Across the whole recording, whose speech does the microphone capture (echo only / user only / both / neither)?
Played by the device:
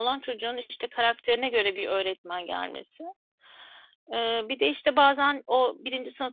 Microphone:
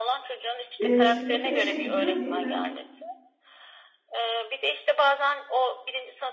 both